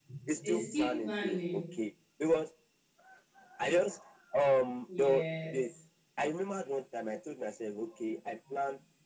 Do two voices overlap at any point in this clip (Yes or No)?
Yes